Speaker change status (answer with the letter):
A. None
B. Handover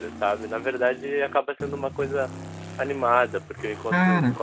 A